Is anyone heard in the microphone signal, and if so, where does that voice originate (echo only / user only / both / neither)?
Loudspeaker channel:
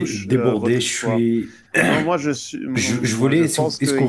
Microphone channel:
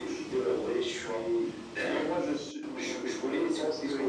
echo only